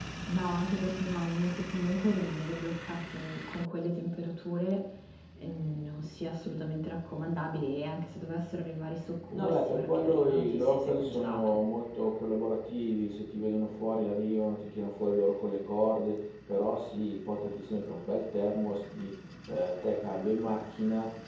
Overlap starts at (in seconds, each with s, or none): 9.3 s